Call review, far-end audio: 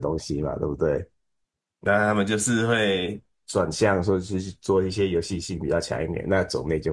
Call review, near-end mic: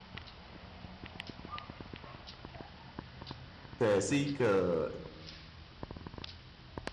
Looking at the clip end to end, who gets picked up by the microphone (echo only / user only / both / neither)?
user only